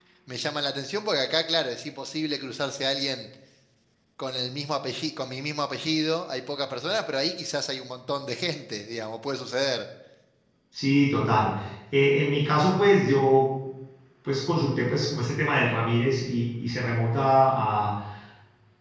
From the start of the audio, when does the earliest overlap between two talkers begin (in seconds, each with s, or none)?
none